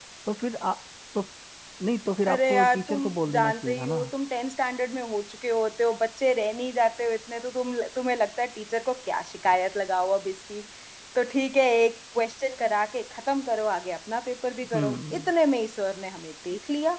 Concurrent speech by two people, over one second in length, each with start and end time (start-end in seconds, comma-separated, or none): 2.3-4.0